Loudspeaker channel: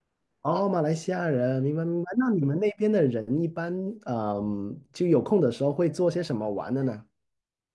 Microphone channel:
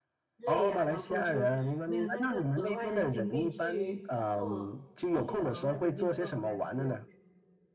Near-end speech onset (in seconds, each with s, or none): 0.4 s